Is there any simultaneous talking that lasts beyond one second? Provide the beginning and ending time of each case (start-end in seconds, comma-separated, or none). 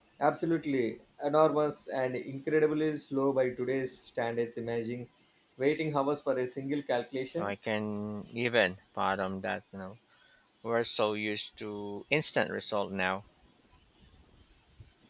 none